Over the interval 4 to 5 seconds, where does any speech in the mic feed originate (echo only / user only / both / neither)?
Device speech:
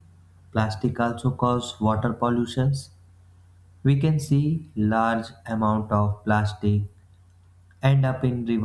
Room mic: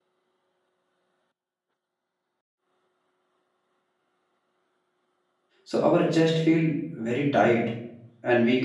neither